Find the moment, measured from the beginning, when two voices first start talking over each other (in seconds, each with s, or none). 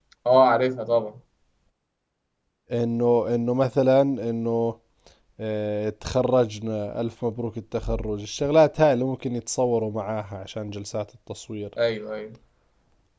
none